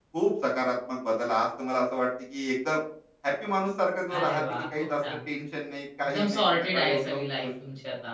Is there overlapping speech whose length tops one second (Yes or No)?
Yes